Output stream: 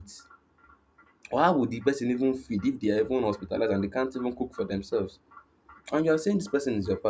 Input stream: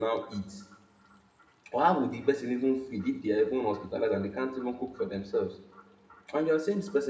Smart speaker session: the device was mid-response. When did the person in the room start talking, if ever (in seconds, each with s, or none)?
none